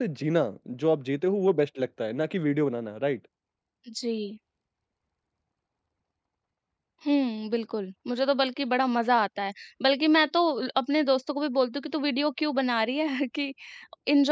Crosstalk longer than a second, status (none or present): none